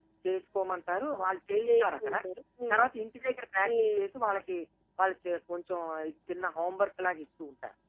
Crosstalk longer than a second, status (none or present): none